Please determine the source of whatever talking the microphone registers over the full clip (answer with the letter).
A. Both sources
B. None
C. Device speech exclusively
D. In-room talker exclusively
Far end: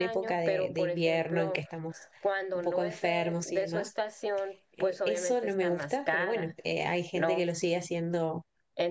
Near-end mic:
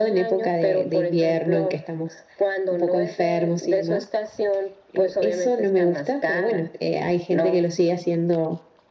C